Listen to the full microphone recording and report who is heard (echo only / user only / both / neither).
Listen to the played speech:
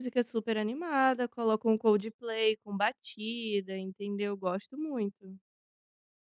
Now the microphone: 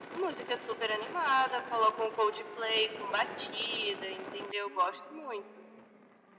echo only